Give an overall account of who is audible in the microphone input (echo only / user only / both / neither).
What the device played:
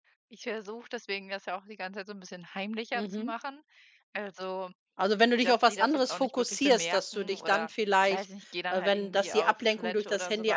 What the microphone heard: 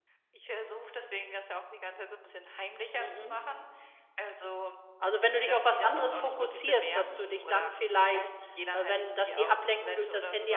echo only